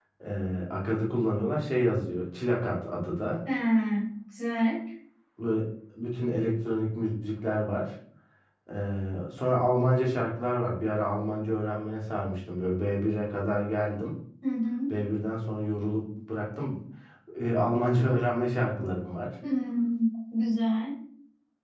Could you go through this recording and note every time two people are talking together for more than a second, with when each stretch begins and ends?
none

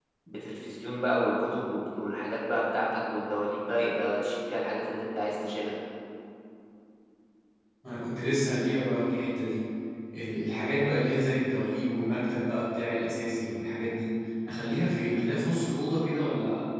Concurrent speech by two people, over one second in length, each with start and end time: none

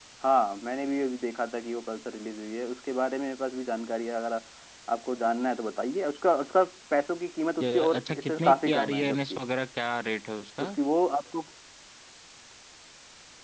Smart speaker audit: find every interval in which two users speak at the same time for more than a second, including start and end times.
7.6-9.4

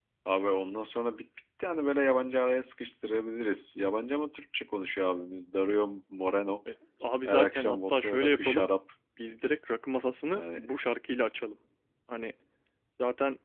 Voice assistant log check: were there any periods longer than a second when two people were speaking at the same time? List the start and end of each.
7.2-8.7

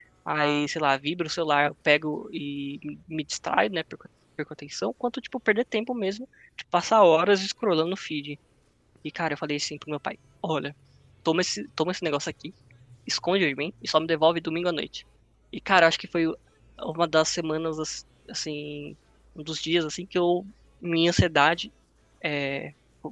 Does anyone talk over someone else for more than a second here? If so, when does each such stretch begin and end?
none

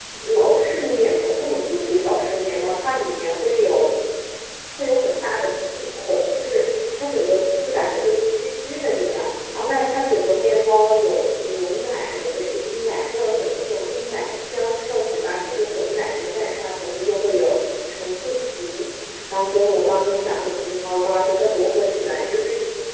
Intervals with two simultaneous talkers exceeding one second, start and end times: none

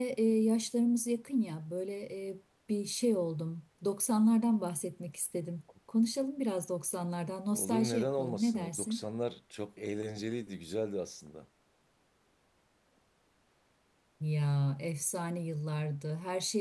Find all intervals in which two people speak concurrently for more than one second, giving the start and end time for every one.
7.5-9.0

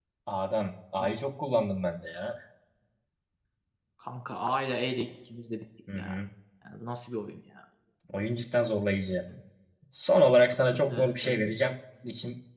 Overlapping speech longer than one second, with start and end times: none

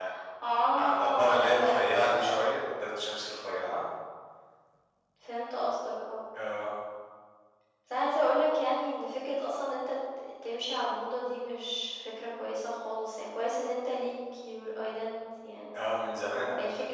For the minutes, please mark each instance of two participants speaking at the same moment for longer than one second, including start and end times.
0.7-2.5

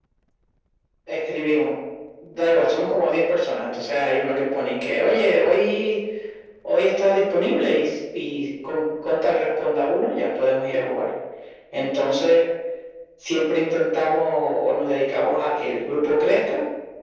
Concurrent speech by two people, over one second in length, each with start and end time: none

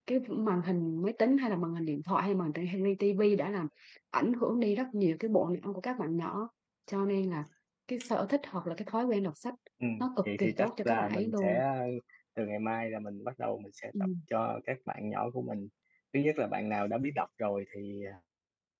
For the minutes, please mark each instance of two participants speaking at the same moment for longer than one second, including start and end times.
10.2-11.6

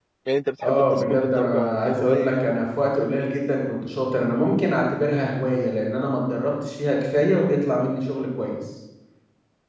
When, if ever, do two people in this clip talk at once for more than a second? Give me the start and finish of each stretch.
0.6-2.6

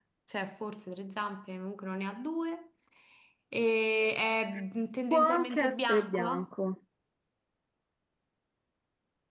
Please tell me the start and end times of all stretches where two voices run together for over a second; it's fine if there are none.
5.1-6.5

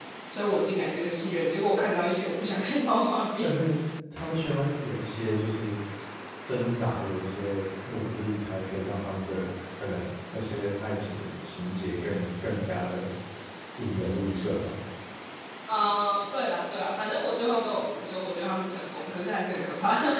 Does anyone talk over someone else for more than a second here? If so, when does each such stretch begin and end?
none

